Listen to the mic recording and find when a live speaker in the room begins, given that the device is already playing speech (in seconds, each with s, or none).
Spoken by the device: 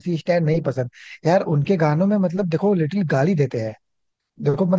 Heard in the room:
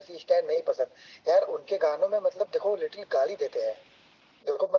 none